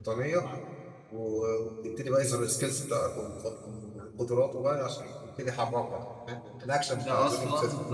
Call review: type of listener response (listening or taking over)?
taking over